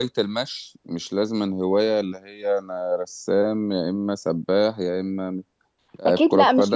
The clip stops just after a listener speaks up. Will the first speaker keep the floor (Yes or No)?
No